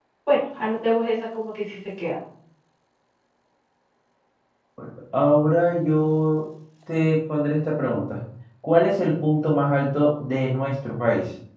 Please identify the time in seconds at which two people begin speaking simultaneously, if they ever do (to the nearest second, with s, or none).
none